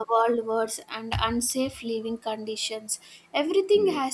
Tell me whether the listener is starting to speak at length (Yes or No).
No